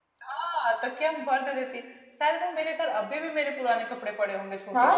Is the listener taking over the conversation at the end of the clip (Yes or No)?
Yes